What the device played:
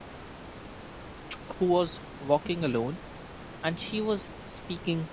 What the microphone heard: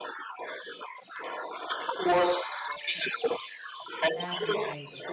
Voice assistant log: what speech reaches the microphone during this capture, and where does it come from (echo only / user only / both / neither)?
both